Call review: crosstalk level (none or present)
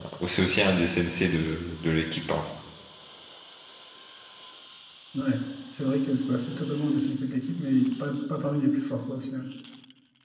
none